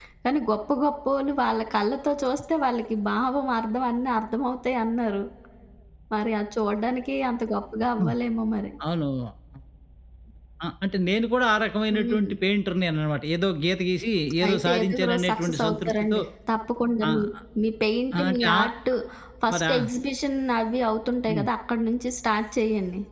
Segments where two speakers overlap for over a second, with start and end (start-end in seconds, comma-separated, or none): 14.5-16.2